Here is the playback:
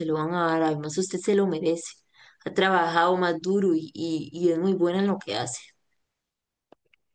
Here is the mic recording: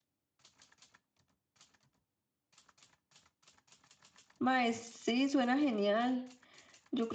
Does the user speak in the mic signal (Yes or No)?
Yes